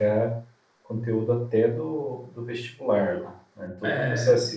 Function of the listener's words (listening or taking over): listening